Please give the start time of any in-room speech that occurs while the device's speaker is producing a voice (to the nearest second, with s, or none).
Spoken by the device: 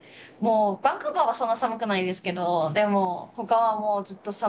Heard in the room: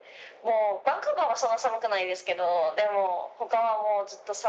none